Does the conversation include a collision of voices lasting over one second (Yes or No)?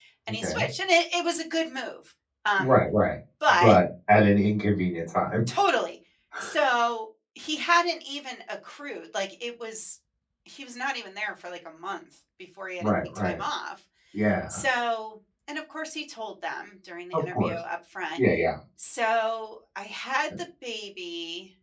No